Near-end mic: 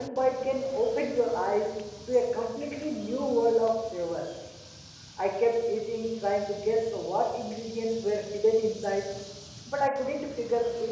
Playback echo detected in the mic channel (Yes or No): No